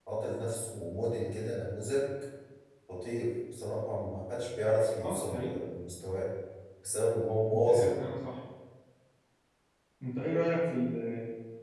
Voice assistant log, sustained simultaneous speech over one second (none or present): none